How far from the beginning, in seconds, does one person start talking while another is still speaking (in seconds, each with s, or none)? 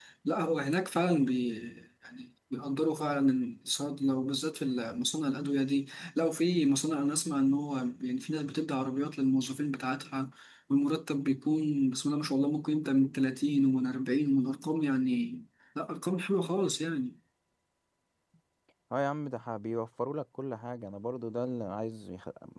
none